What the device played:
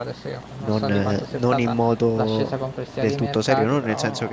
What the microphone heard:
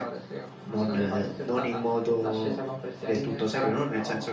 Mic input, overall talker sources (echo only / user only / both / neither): echo only